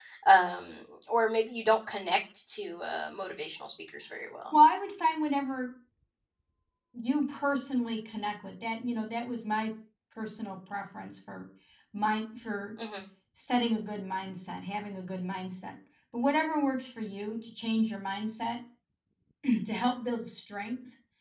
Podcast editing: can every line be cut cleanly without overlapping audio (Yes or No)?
Yes